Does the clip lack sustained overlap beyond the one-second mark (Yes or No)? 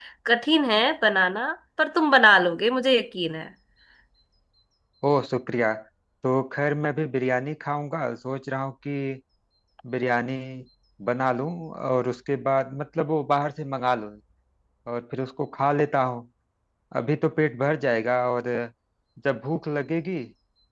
Yes